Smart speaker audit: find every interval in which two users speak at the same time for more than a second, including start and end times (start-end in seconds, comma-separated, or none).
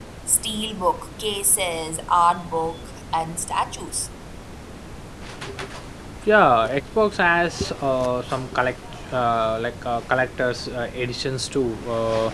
none